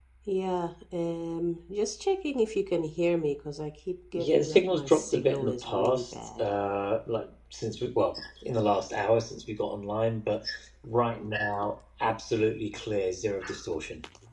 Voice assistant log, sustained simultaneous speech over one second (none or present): present